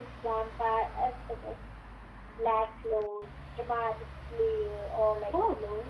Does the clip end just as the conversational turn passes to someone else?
Yes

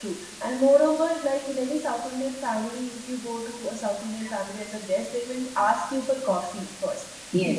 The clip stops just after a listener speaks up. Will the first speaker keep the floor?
Yes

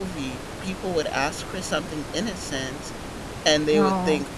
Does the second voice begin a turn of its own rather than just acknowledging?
No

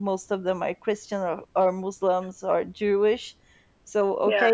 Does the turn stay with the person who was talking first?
Yes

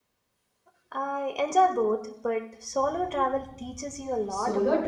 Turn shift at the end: Yes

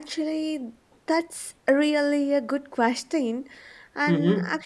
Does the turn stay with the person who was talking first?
Yes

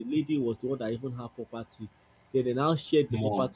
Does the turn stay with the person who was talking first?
Yes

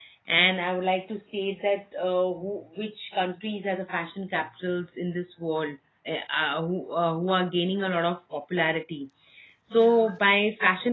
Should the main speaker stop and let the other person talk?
No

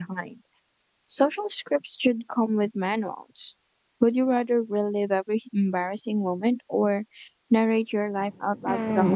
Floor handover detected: Yes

